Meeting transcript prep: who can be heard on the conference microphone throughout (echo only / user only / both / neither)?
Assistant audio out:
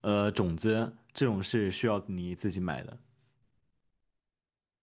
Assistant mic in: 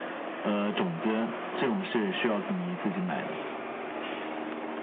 echo only